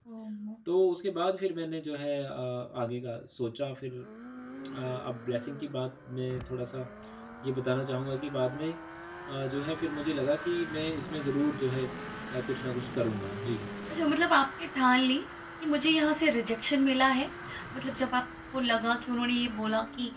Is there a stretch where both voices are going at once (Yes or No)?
No